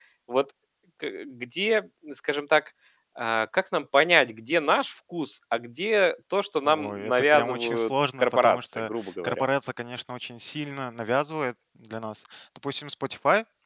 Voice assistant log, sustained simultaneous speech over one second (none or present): present